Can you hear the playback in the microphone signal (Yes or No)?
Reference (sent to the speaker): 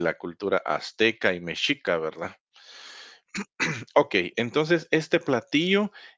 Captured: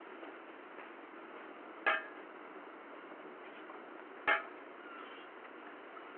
No